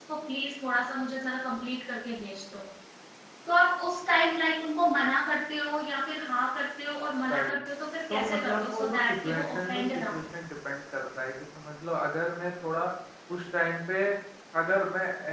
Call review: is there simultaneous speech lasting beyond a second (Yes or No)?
Yes